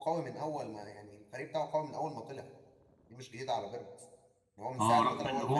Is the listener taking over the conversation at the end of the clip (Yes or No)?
Yes